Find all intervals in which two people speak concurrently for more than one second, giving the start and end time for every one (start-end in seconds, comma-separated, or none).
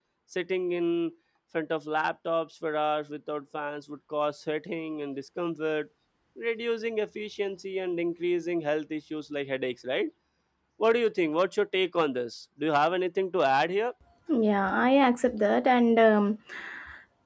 none